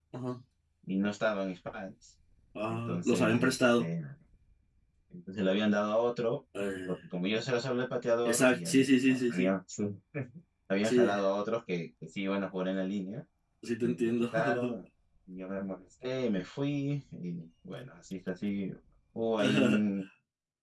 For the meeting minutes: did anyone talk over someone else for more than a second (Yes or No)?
Yes